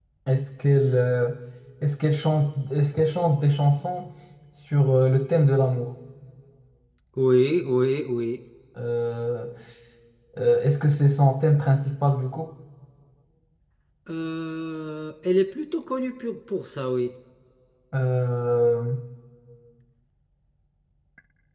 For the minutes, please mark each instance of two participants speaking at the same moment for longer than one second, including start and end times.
none

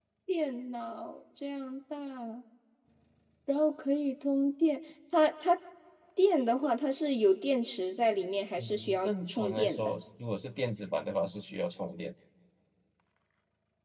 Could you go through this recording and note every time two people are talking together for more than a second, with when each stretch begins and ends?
8.6-9.9

